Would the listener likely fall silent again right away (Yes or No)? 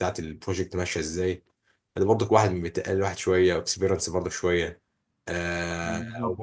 Yes